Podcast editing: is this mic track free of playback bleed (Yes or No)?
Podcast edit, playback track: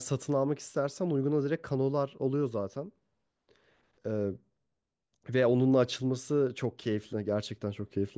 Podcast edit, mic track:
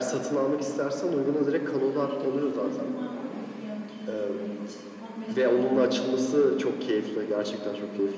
No